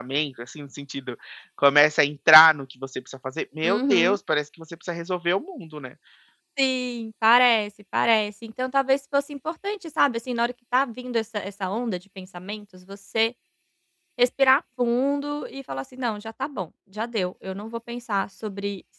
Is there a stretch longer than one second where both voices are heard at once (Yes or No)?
No